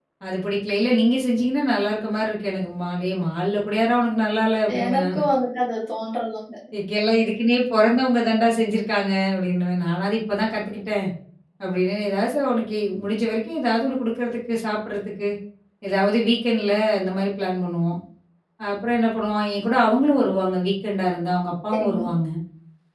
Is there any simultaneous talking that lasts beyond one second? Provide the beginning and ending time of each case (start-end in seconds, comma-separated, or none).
none